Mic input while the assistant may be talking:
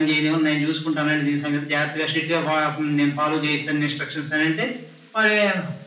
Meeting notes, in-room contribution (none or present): none